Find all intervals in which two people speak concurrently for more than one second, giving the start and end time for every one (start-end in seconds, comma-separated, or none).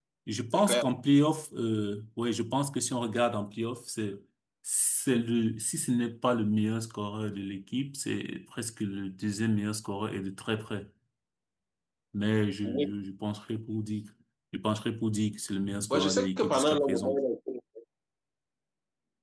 15.9-17.2